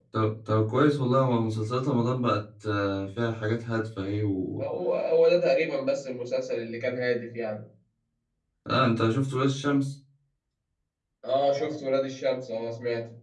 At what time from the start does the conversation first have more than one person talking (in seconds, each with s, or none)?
none